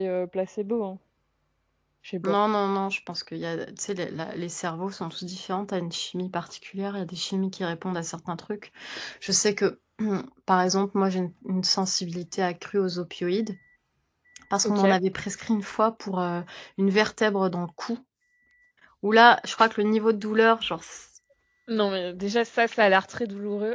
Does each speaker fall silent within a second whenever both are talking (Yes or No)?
Yes